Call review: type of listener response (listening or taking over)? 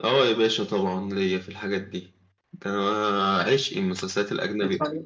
listening